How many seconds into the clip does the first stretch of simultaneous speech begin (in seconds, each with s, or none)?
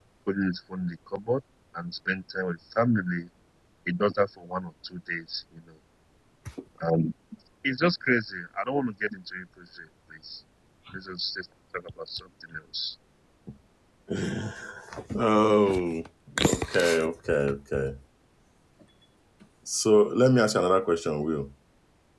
none